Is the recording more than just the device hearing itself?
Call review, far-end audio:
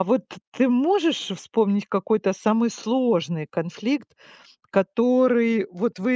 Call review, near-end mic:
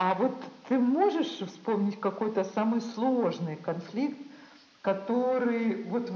No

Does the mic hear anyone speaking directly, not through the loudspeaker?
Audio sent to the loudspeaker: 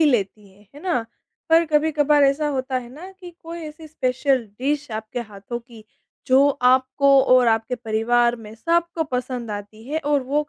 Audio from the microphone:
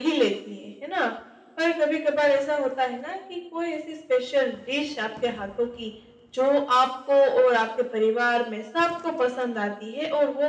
No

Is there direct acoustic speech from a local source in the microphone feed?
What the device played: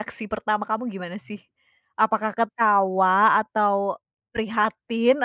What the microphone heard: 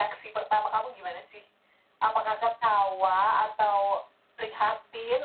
No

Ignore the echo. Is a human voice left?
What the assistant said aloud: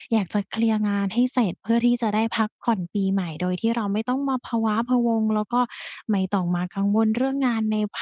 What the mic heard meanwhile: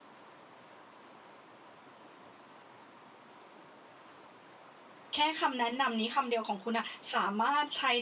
Yes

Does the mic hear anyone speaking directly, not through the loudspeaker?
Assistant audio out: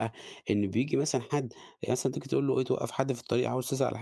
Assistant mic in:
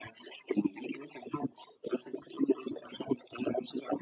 No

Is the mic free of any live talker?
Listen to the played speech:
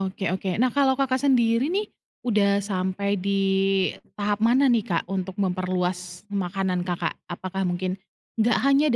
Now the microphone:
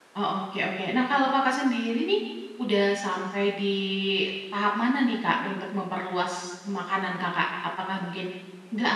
Yes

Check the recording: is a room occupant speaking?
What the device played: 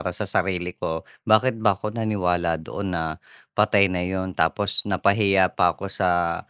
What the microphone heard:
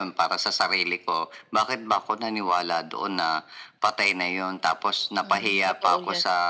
Yes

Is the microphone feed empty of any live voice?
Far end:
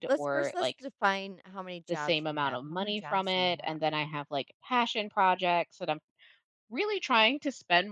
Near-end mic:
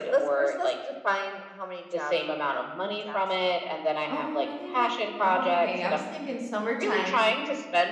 No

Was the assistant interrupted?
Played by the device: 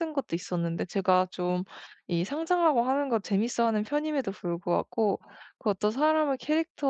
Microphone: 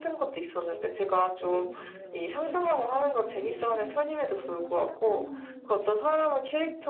Yes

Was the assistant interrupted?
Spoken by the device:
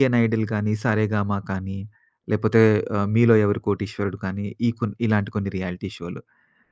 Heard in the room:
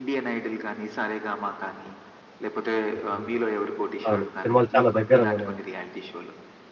Yes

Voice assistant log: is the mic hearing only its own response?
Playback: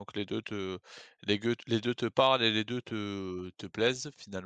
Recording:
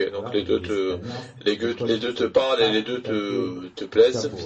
No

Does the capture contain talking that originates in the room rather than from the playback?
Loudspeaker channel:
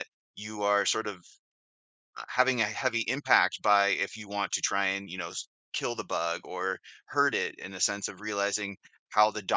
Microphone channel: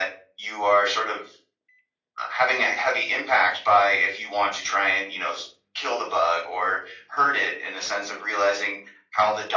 No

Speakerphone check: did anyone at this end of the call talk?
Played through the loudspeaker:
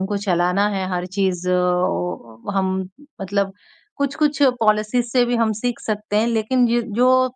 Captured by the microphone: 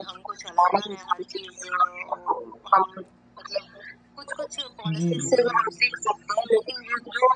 Yes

